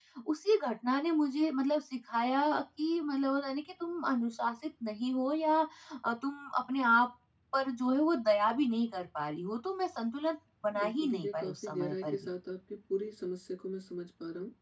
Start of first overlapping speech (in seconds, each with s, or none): 10.8 s